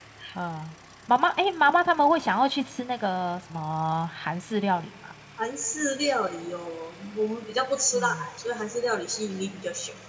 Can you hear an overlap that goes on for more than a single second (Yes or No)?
No